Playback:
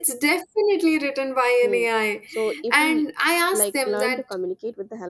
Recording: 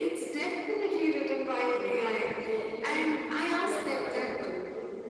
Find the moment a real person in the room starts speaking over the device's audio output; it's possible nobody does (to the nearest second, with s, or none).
none